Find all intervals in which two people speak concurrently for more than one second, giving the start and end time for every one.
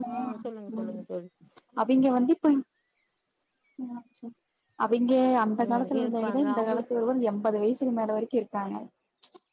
5.7-6.9

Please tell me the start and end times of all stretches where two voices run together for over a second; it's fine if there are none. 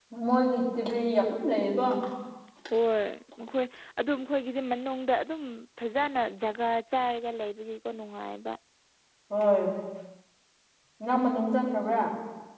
none

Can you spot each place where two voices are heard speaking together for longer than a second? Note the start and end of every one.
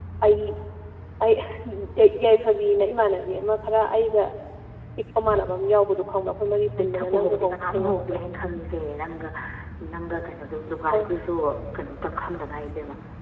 6.8-8.2

